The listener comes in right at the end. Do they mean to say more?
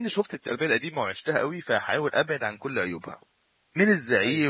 No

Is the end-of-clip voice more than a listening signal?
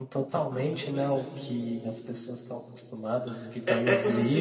Yes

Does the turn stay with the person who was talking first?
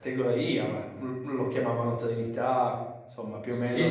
No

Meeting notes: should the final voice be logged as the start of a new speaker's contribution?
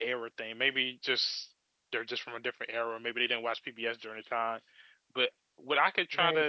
No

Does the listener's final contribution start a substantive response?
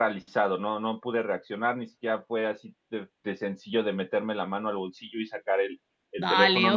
Yes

